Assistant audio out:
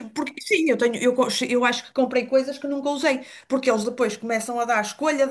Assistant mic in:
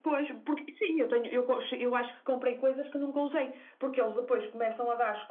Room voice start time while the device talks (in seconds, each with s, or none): none